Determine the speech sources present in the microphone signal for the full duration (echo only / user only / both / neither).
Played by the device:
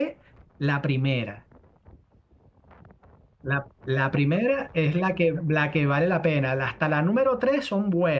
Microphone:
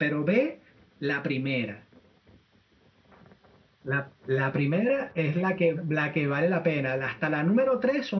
echo only